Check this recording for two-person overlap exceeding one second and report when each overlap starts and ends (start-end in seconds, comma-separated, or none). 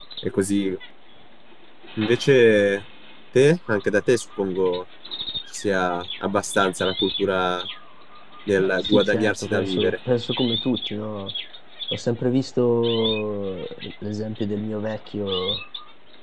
8.6-9.9